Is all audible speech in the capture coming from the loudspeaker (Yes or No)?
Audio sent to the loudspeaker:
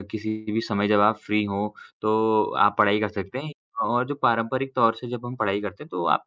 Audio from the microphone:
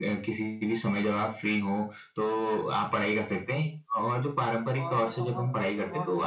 No